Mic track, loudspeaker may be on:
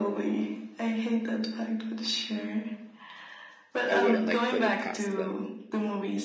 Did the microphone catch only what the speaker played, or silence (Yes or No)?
No